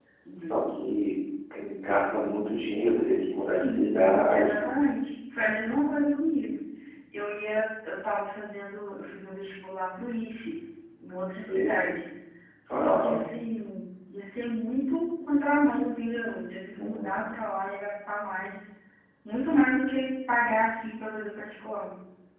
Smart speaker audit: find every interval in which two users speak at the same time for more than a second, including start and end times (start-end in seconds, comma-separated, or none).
3.3-4.6